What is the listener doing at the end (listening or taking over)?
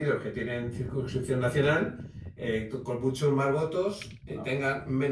listening